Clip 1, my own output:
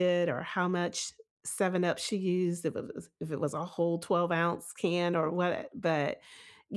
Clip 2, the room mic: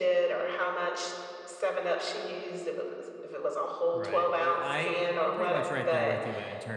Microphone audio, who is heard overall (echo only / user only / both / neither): both